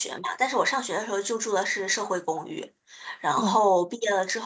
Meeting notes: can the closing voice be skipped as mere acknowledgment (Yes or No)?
Yes